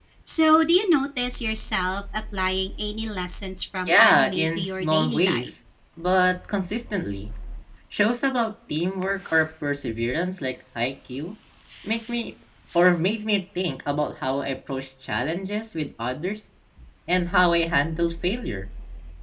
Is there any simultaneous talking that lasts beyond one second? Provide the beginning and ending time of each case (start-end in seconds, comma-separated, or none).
3.9-5.5